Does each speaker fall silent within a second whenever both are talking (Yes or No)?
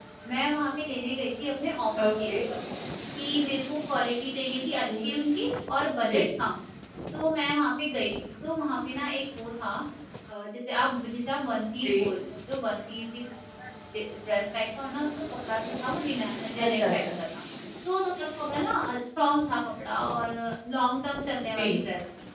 Yes